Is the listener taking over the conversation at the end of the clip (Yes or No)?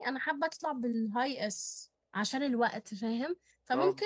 No